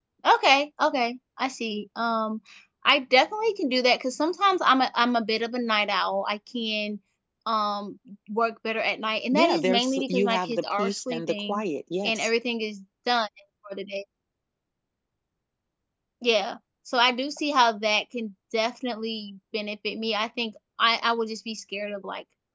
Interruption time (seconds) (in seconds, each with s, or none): 9.3 s